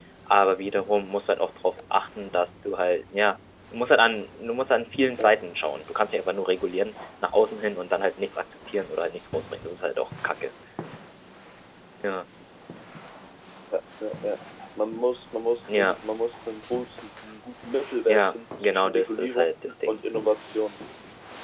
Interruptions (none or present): present